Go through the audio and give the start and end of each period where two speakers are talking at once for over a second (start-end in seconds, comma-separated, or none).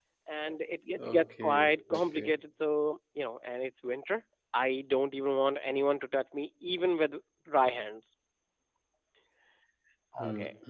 1.0-2.3